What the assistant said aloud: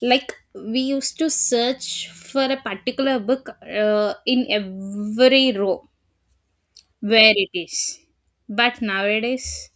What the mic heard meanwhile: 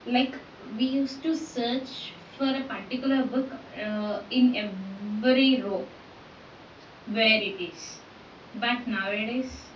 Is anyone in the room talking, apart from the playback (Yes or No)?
No